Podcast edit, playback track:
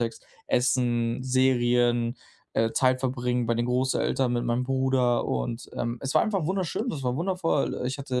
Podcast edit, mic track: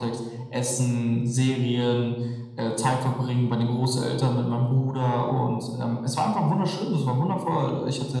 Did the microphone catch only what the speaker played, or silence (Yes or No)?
Yes